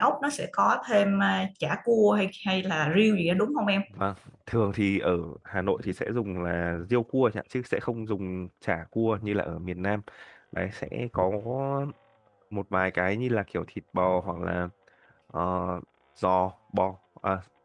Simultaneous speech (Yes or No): No